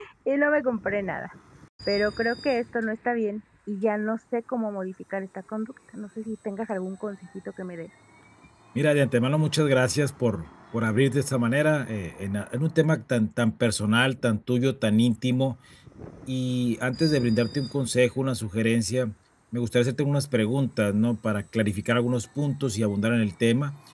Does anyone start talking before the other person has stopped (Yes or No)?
No